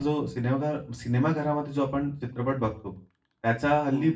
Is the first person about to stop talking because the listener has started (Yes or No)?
No